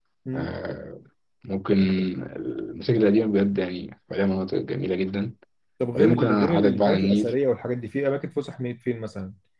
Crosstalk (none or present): present